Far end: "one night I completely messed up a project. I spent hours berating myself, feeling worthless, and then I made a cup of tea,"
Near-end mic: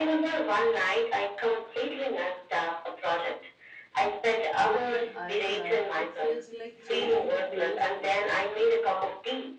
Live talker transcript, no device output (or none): but when i try it feels like chasing a ghost